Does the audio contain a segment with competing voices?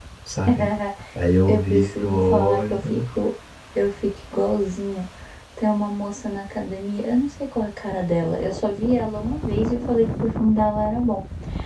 Yes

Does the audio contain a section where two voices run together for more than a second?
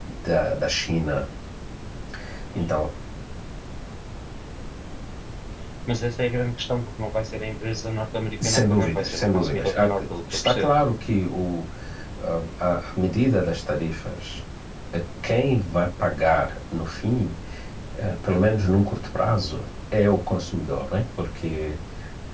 Yes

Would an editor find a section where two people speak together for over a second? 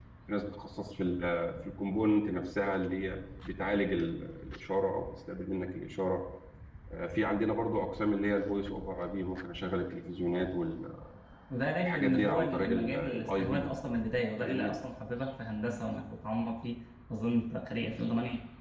Yes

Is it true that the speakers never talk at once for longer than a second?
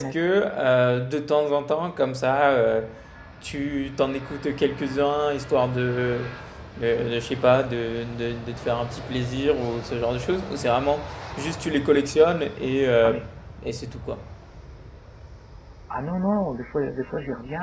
Yes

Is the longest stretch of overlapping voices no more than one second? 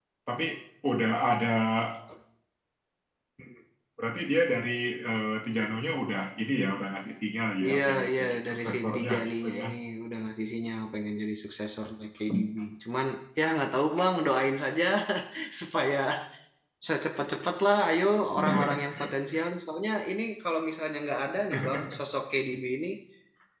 No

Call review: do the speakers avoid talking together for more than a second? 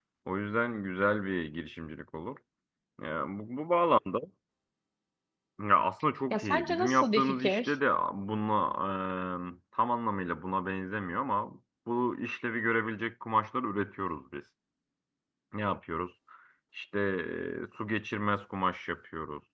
No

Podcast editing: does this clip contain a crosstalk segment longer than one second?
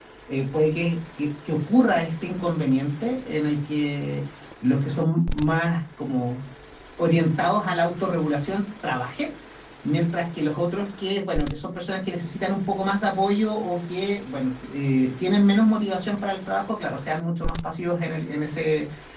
No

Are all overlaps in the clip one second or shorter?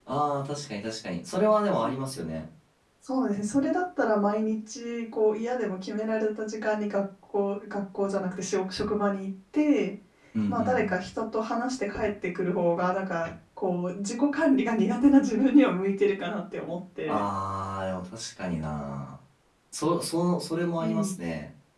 Yes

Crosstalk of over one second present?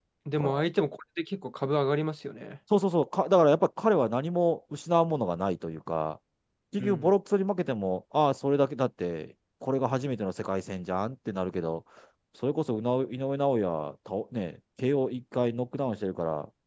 No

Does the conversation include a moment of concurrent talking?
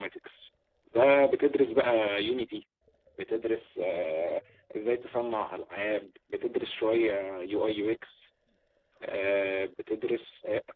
No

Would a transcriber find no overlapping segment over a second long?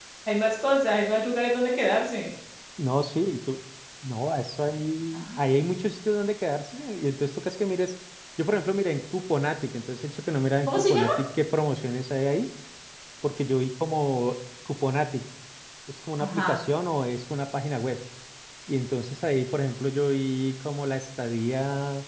Yes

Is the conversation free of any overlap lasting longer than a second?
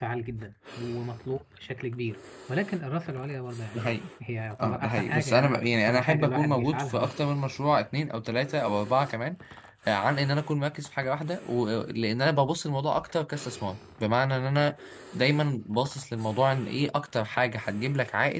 No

